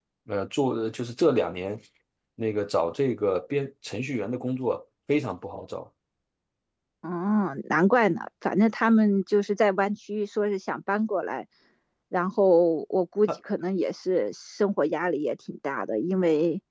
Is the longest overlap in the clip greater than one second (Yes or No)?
No